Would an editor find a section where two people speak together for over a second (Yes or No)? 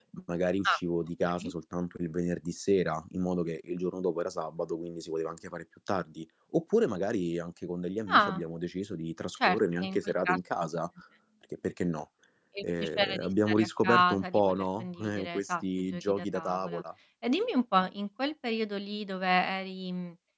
Yes